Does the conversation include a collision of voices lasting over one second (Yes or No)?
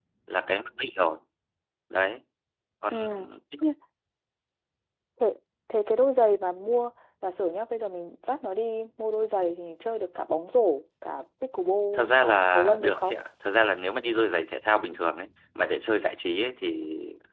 Yes